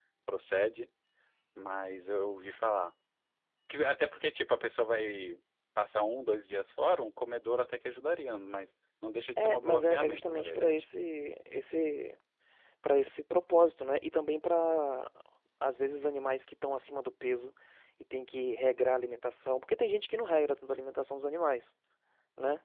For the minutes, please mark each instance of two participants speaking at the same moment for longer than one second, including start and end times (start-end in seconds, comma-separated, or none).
9.4-10.8